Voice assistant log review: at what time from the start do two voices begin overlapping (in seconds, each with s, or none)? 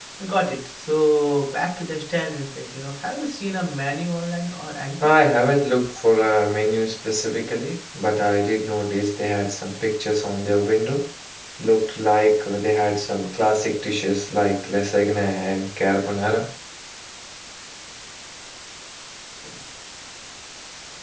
none